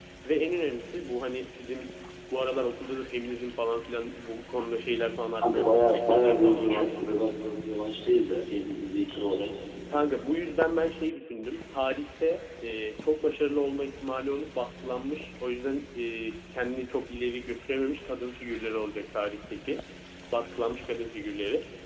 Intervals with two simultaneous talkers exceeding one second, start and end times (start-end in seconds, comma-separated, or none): 5.4-6.9